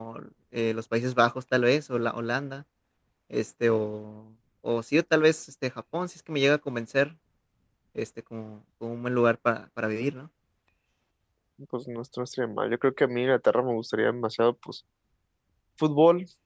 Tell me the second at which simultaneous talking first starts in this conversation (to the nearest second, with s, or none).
none